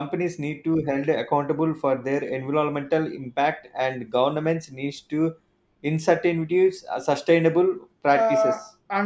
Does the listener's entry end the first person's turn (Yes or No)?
Yes